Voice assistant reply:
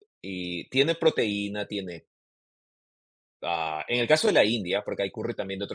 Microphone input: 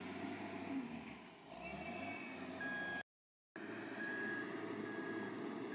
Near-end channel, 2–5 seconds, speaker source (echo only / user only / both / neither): neither